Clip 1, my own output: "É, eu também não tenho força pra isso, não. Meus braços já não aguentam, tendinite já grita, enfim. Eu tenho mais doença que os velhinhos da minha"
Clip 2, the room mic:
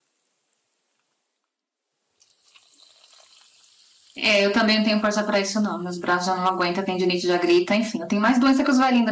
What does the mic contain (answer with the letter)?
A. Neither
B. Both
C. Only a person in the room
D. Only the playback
D